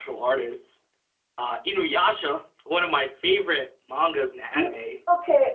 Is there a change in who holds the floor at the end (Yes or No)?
Yes